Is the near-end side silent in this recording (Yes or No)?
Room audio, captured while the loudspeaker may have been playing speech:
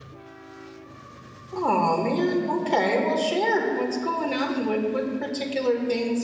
No